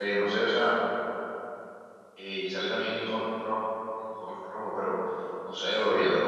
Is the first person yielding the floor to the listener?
No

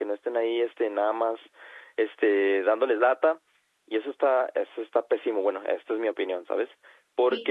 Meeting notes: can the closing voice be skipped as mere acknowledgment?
Yes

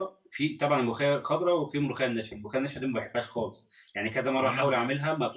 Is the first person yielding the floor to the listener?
No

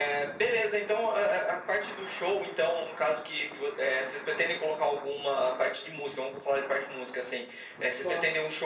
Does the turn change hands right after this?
No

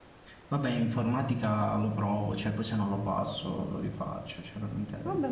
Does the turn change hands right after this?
Yes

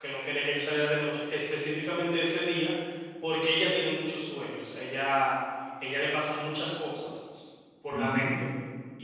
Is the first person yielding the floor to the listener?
No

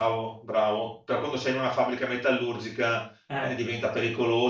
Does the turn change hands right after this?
No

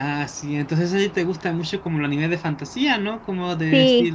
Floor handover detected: No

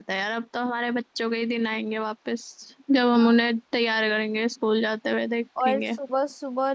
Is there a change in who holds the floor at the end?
Yes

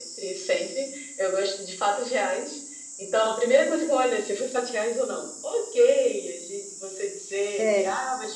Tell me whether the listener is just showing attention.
Yes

